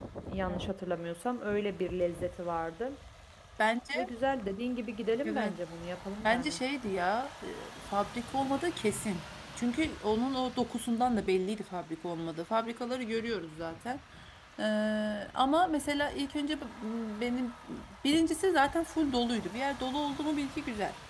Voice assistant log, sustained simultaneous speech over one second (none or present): none